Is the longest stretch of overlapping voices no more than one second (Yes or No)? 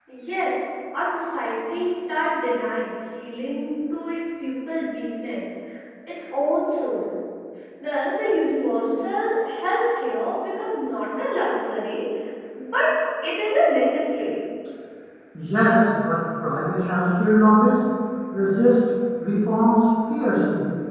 Yes